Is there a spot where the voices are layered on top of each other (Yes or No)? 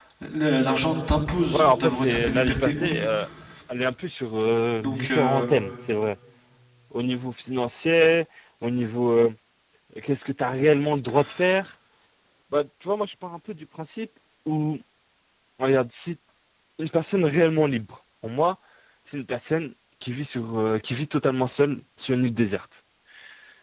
Yes